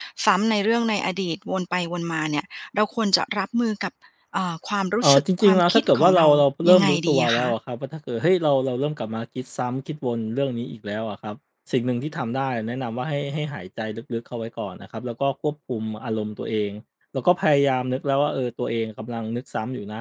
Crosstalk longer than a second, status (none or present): present